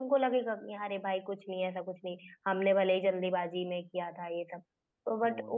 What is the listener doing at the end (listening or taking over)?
listening